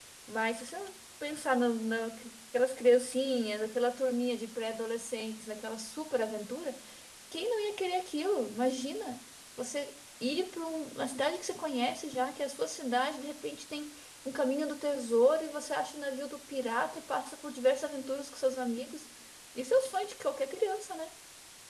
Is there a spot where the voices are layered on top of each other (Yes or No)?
No